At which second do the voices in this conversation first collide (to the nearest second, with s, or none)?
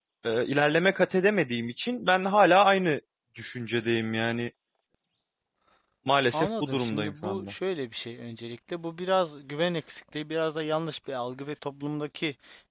6 s